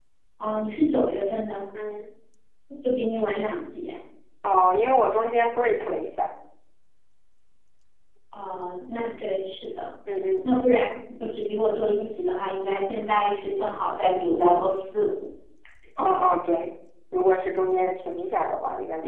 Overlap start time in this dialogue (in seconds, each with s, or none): none